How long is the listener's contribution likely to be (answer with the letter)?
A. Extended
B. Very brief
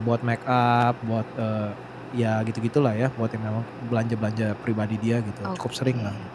A